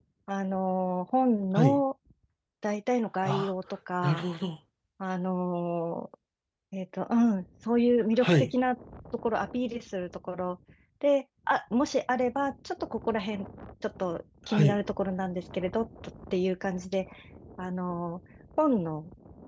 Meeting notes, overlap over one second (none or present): none